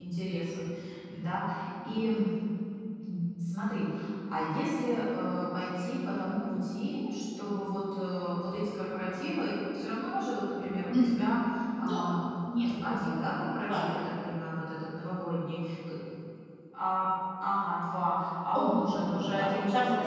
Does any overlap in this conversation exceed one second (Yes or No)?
Yes